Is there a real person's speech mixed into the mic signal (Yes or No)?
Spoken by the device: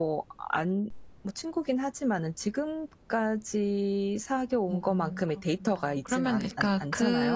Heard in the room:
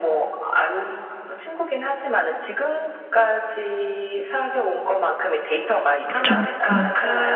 Yes